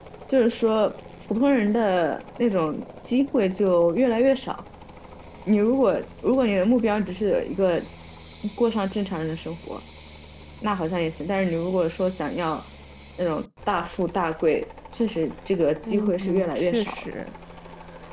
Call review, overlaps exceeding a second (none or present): present